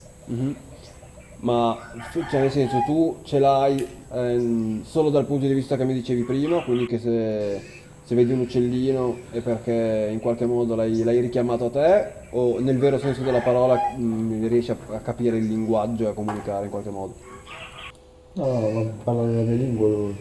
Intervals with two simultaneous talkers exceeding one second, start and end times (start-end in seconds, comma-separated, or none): none